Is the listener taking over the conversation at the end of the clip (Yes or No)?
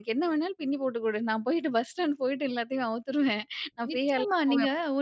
Yes